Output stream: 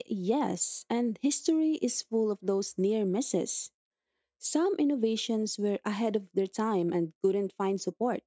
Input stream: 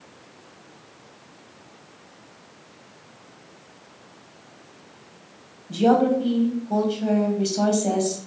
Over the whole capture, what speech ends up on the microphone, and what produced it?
user only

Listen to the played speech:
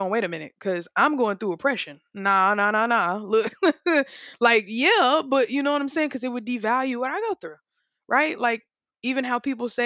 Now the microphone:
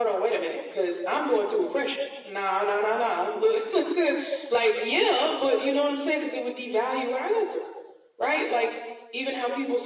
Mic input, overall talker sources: echo only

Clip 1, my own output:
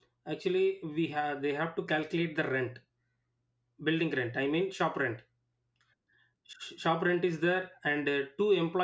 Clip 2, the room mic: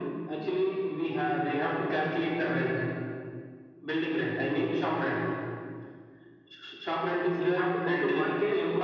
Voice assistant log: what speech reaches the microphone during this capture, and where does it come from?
both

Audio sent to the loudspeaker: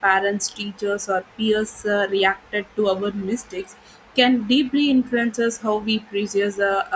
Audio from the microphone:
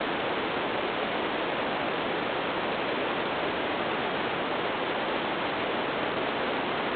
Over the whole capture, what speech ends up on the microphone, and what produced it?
neither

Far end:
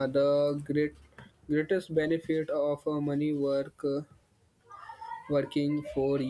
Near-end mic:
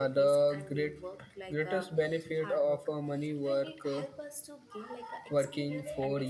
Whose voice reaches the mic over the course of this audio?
both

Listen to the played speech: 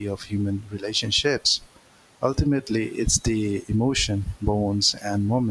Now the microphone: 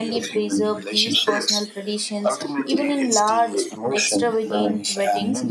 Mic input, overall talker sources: both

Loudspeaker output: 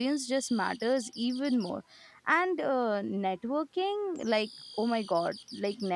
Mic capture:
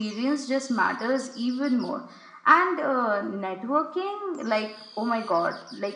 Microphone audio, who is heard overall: echo only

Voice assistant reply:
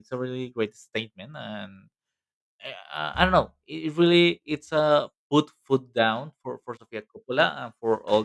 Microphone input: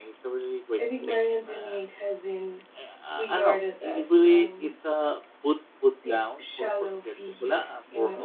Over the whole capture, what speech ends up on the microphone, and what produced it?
both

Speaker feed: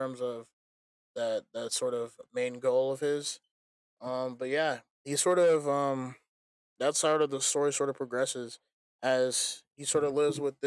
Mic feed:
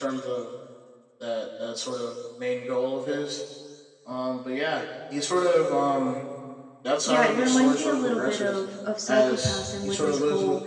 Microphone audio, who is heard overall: both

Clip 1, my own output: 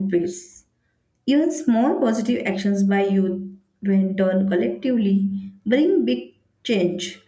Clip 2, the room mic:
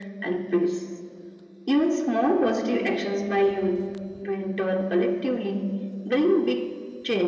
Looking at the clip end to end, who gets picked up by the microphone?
echo only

